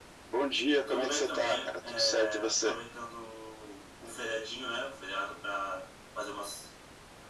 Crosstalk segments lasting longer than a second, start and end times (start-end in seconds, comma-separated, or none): 0.9-2.8